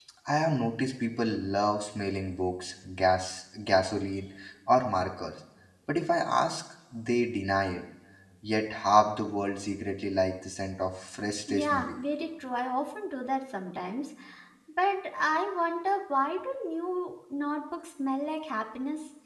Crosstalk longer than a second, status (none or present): none